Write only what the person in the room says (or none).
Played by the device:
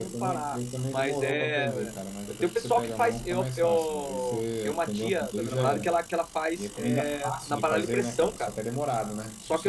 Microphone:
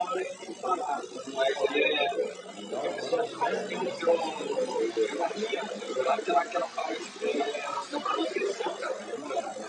E dá o ponto certo, ele não fica duro,